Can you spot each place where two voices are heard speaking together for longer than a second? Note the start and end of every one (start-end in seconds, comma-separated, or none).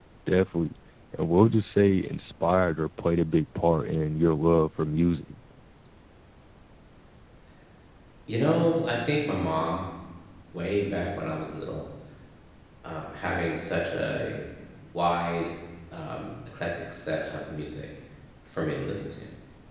none